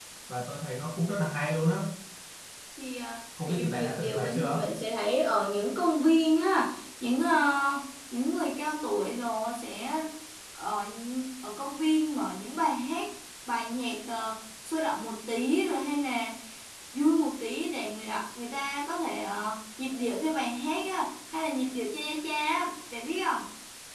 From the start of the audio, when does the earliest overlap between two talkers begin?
3.4 s

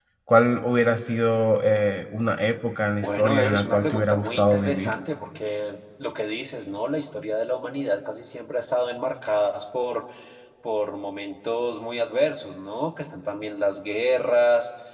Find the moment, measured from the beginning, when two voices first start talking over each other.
3.0 s

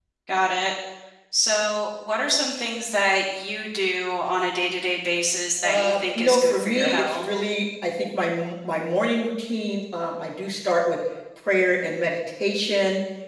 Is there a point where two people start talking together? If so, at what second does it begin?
5.6 s

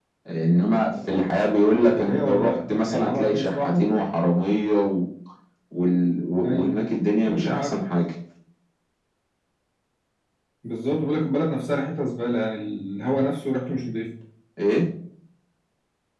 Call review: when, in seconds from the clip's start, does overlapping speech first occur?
1.9 s

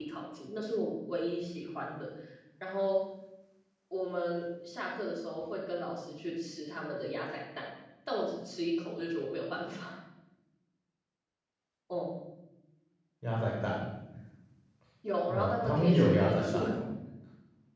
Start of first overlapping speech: 15.3 s

